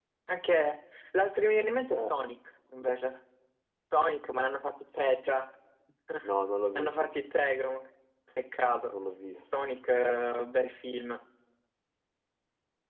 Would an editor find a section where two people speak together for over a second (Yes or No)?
No